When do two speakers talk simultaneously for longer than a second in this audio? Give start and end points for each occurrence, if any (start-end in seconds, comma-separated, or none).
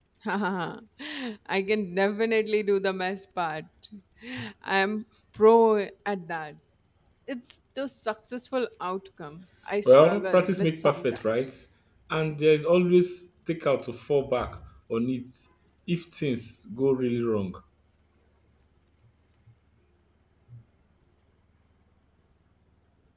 9.8-11.5